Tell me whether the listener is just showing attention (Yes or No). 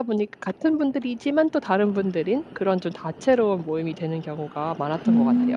No